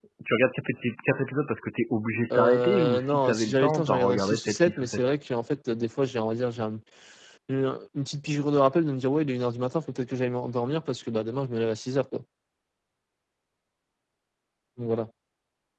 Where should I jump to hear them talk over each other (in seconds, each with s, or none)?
2.3 s